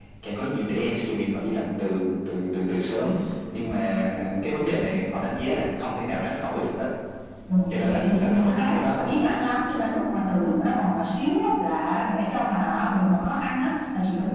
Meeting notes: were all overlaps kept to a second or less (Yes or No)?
No